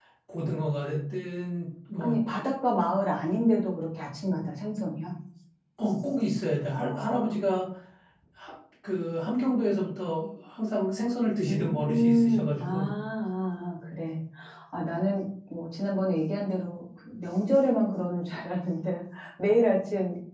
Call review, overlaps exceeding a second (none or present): present